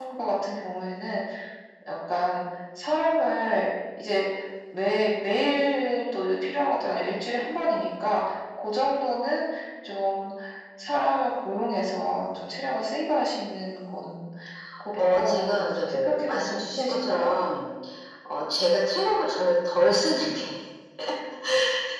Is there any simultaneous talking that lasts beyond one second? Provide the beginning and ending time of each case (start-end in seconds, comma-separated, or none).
14.9-17.2